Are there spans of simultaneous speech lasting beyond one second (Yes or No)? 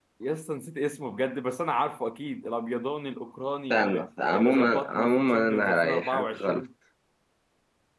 Yes